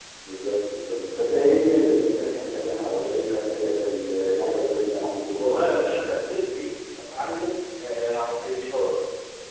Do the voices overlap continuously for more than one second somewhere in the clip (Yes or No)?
No